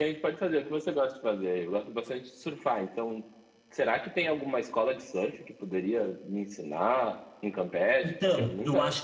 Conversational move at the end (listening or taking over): taking over